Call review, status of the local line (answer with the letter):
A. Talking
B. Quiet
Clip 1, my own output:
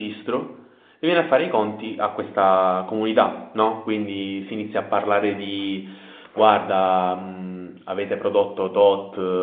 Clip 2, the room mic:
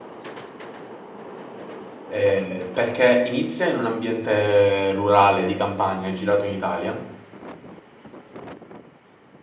A